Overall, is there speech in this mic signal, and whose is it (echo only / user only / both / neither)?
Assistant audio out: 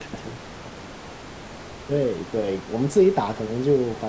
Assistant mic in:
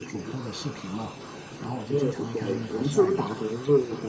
both